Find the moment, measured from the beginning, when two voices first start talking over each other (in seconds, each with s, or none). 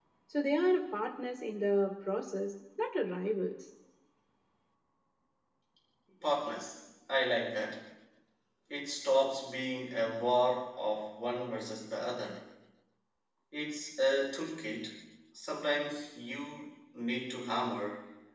none